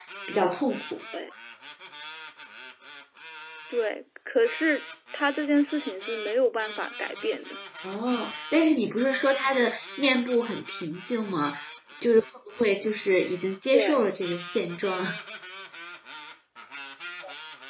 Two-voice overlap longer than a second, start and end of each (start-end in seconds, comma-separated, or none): none